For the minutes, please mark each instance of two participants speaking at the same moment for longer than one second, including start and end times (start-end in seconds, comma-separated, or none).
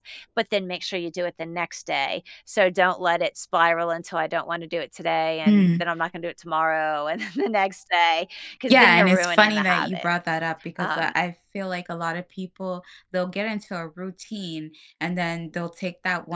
8.7-10.1